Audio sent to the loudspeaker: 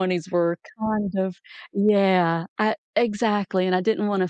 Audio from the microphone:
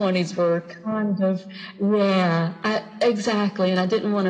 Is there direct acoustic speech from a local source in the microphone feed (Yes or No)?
No